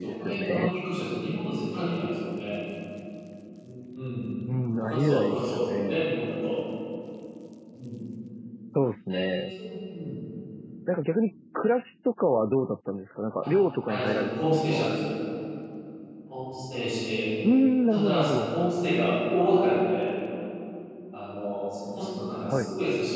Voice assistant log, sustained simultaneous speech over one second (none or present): present